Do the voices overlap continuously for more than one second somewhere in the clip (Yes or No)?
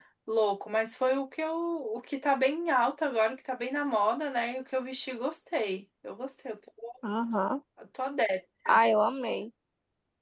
No